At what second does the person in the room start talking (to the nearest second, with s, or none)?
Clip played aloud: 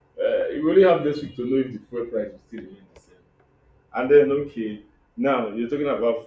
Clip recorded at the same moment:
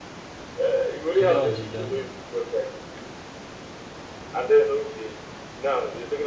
1 s